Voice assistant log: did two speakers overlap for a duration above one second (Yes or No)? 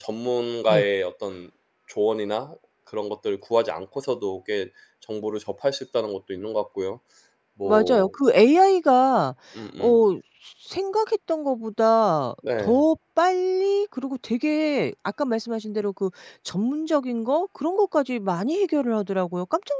No